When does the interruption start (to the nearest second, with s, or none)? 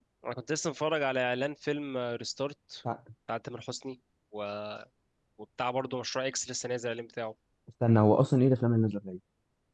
none